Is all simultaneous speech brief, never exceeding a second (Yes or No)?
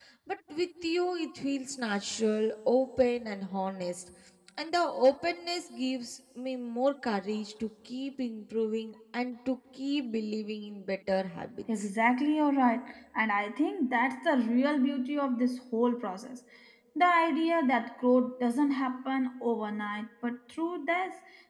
Yes